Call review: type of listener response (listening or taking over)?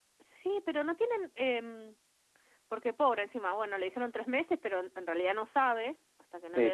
taking over